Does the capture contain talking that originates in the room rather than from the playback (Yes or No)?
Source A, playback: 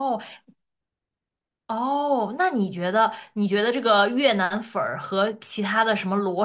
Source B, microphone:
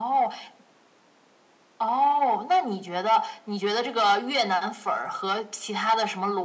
No